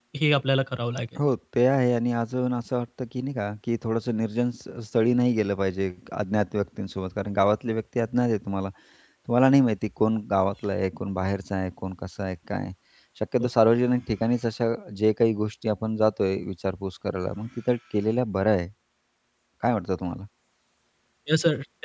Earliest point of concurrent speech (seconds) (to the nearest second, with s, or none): none